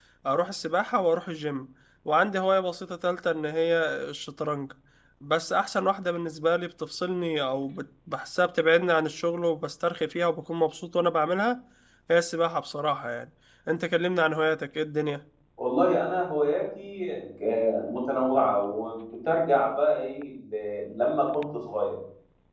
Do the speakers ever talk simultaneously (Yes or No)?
No